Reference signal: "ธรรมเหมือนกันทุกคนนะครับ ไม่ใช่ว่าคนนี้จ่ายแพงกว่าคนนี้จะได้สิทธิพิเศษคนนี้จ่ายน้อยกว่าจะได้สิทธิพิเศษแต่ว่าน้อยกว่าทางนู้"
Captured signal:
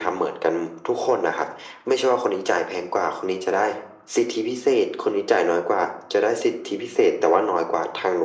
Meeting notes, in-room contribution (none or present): none